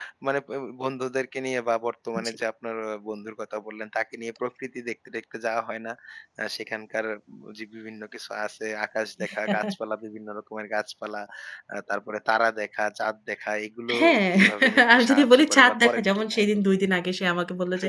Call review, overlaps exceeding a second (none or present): present